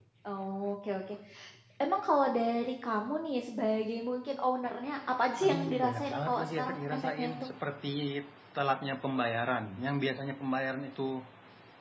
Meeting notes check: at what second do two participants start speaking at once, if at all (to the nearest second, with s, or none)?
5 s